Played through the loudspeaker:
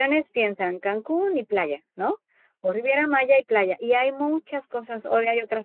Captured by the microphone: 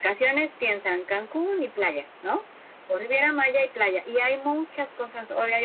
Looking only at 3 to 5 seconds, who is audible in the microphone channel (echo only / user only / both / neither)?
echo only